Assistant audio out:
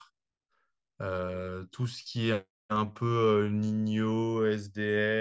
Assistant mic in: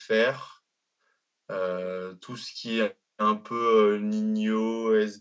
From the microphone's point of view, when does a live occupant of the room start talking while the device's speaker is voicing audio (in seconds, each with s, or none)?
none